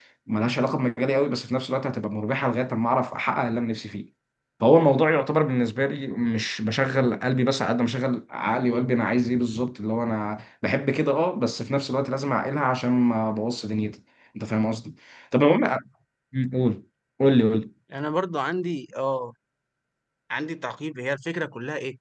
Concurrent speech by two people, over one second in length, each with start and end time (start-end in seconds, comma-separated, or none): none